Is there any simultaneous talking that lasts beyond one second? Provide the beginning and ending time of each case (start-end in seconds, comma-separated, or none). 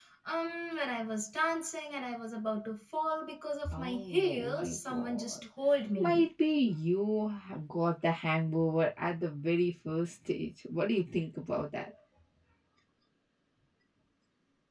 3.7-5.4